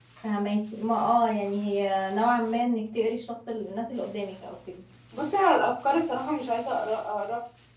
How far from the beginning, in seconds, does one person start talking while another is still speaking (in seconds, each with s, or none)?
none